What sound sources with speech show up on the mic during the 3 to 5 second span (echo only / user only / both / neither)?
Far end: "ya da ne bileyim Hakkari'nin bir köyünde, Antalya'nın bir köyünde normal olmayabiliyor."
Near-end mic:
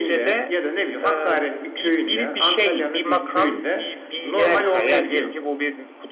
both